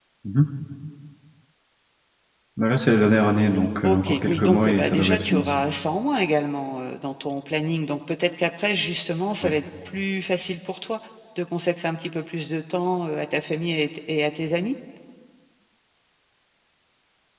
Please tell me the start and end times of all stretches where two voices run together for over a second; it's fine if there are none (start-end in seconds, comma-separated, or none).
3.8-5.5